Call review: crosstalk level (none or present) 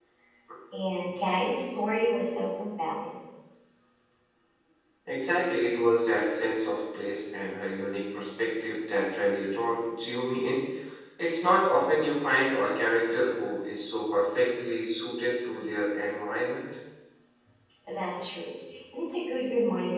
none